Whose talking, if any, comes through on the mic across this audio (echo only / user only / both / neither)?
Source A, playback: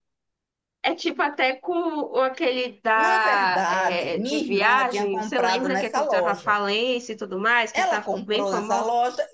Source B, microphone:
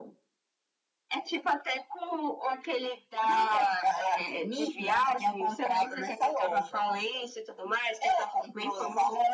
echo only